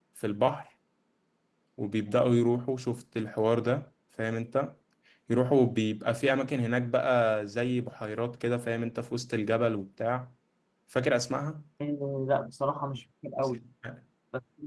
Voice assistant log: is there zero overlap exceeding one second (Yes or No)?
Yes